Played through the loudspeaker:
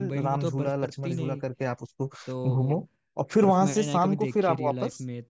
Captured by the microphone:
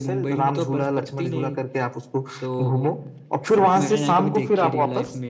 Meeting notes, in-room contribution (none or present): none